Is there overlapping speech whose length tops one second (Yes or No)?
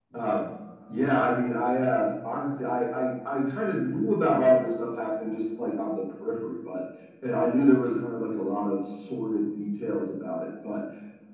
No